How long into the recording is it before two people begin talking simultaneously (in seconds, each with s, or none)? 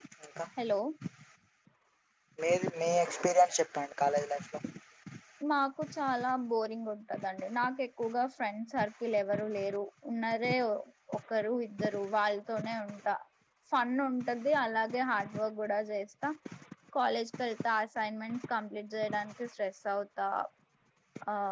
none